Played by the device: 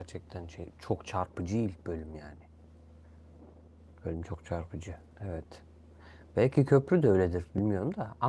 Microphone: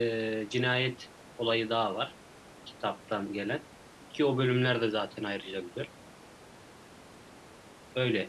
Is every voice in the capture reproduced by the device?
No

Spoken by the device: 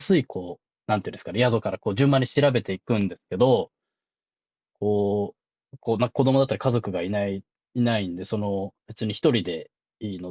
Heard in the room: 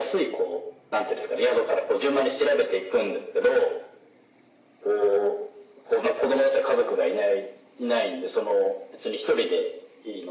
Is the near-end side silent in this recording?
Yes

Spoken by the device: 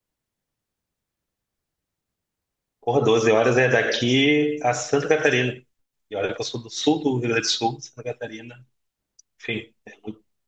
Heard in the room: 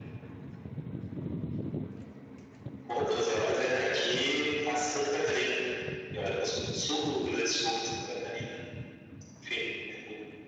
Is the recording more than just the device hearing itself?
No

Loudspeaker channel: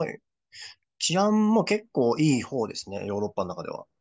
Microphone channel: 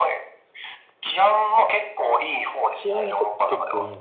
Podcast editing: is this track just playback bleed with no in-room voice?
No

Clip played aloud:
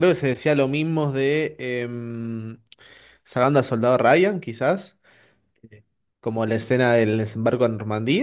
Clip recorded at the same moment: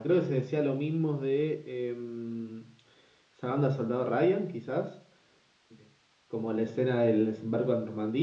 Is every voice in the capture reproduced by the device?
Yes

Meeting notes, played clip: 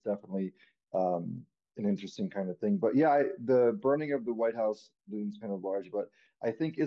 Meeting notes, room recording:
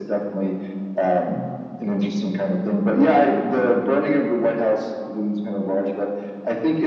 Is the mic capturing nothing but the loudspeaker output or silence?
Yes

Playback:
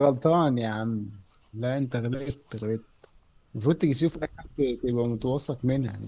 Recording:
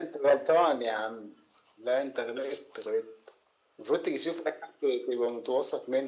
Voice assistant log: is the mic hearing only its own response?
Yes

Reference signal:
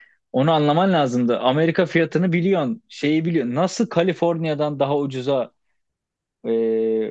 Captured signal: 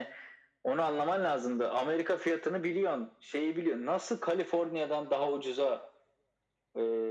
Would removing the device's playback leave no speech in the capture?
Yes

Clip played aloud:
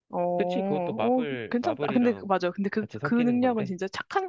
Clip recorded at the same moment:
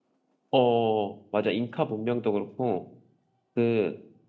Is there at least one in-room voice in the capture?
Yes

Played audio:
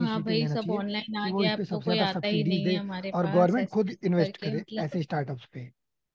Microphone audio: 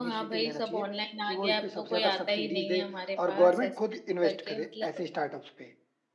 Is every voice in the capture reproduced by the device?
Yes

